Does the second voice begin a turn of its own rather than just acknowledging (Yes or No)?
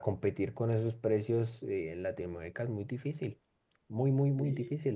Yes